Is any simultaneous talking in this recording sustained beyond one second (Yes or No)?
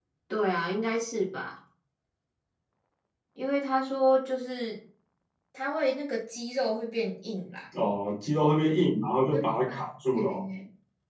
No